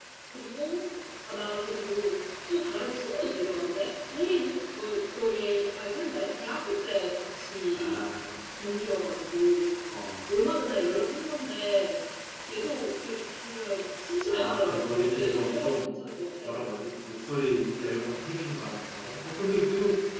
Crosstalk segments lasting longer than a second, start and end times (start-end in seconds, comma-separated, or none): 14.3-15.9